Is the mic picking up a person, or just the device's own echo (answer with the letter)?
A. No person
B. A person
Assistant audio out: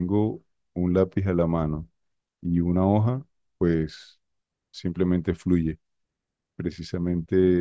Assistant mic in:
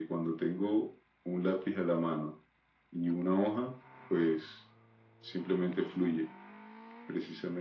A